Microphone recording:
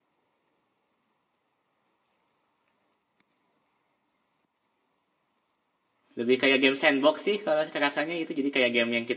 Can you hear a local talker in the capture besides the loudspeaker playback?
Yes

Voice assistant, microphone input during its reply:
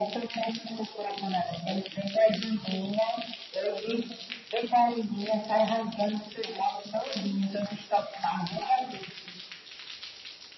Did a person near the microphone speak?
No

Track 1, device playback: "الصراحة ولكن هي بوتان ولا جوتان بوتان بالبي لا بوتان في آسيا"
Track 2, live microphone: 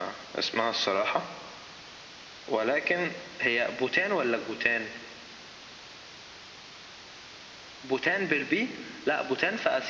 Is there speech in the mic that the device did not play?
No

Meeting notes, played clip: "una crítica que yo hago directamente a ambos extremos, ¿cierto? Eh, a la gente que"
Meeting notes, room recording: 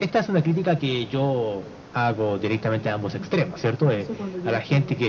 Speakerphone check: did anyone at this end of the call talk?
Yes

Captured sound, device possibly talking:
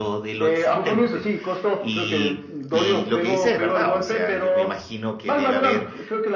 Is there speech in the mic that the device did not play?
Yes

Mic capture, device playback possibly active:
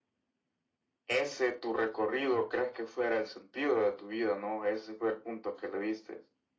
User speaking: No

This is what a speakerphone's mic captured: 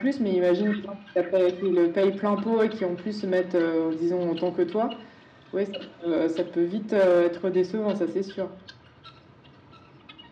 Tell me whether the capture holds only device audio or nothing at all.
Yes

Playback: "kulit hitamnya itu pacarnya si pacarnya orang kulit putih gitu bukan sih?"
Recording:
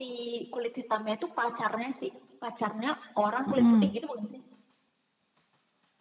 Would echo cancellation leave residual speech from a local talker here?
Yes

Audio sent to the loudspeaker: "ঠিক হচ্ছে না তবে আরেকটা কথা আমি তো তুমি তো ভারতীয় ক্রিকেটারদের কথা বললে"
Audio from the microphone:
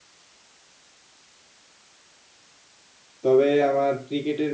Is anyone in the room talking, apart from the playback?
Yes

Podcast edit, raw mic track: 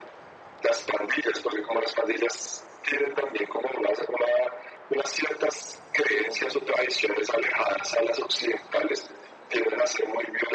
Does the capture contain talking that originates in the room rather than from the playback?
No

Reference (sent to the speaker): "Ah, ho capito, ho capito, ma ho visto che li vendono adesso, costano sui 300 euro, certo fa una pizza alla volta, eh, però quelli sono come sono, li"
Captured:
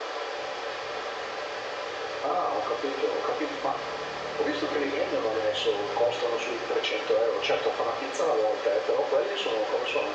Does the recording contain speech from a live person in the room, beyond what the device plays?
No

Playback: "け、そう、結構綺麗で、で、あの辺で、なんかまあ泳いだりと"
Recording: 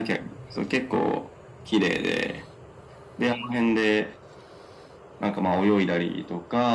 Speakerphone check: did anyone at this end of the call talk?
No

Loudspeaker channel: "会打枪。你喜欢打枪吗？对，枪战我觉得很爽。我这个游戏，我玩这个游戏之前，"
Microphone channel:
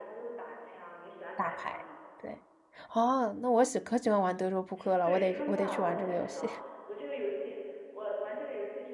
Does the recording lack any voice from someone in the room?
No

